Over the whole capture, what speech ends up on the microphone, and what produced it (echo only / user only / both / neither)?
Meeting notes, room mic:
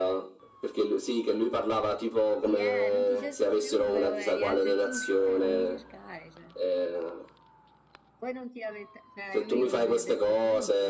both